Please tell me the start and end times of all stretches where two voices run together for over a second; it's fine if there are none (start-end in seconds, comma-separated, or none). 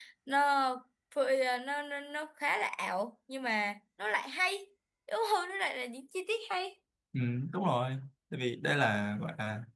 none